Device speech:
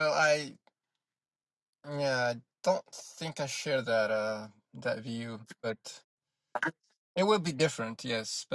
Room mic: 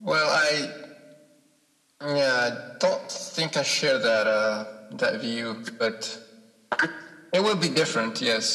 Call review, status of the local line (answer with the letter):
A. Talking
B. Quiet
B